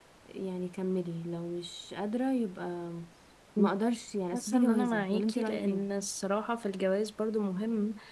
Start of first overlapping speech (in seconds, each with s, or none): 4.3 s